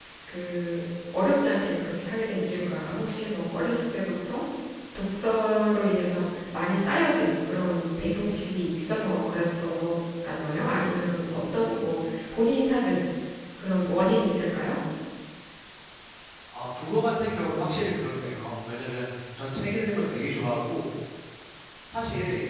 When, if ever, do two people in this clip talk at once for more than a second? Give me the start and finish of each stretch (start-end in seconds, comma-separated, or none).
none